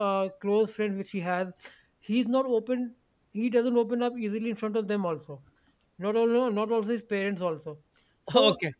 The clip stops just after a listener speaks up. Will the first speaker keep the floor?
Yes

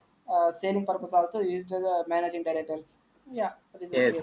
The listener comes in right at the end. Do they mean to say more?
Yes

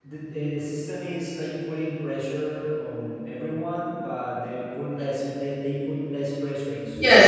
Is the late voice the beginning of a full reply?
Yes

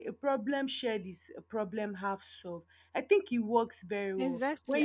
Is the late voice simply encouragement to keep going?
No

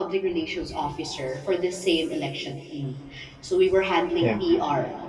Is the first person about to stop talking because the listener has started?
No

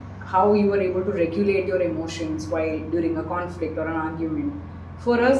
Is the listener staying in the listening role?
Yes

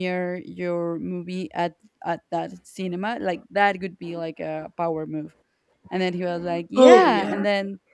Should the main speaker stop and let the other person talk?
No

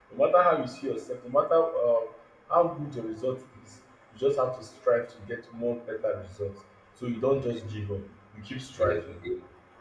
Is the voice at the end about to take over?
Yes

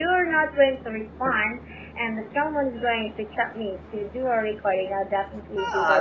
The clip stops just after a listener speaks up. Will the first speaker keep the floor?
No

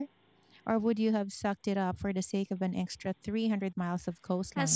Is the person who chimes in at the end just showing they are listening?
No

